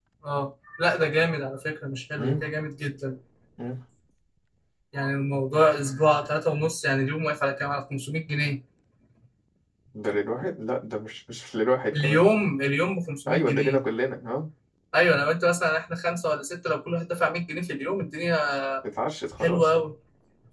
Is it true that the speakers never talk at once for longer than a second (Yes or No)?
Yes